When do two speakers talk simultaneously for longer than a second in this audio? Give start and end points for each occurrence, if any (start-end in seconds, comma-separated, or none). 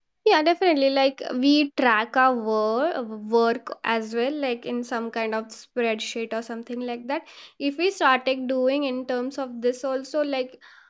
none